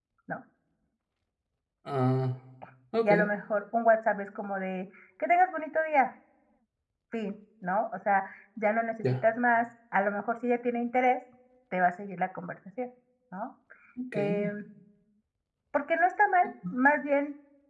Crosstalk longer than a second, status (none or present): none